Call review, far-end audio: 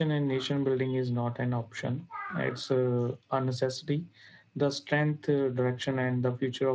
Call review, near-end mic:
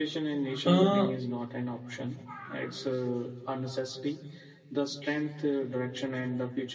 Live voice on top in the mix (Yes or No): Yes